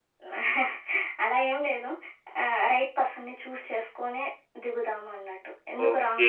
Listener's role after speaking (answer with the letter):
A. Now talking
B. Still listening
A